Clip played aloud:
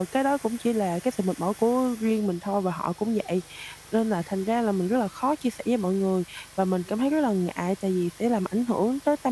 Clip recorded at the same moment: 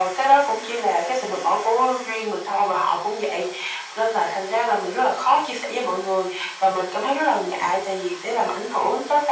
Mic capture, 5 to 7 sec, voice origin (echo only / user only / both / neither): echo only